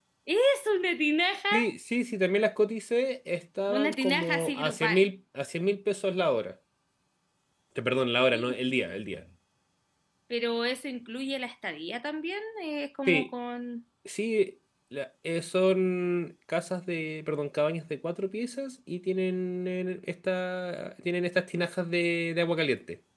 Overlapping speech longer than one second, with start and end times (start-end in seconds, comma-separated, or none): 3.7-5.1